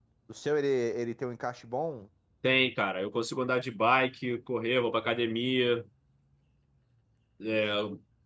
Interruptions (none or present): none